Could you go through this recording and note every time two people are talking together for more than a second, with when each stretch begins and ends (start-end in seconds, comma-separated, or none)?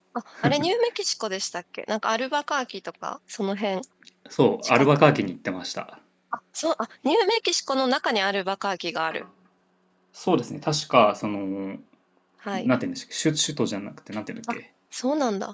none